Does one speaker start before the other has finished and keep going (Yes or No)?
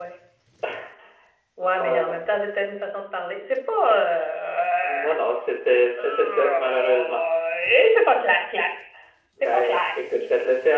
Yes